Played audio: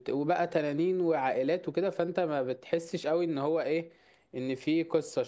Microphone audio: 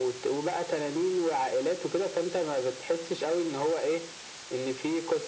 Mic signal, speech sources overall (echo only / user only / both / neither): echo only